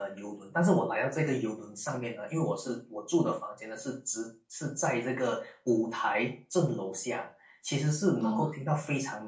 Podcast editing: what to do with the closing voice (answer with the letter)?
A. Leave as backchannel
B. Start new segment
A